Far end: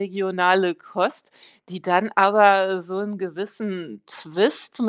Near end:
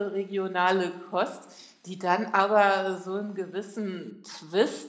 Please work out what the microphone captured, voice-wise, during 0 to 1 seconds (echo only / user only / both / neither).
echo only